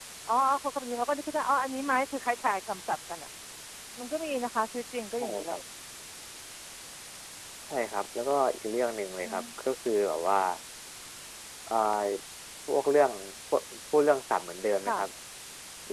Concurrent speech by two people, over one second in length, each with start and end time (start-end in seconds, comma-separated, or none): none